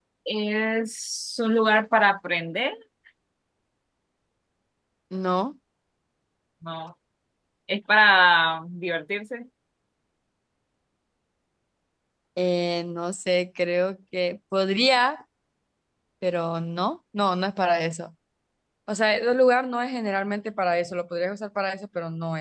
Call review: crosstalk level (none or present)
none